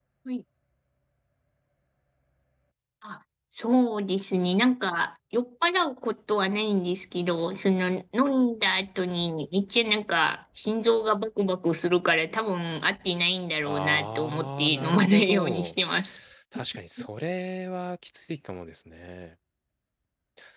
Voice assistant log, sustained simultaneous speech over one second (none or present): present